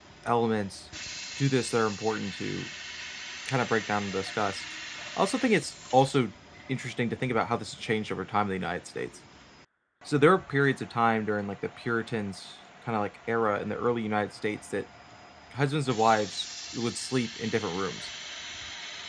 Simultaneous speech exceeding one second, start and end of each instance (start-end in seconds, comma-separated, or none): none